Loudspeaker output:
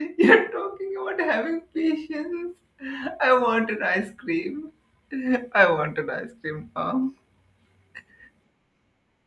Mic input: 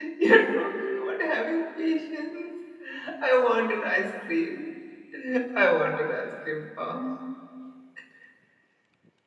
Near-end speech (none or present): none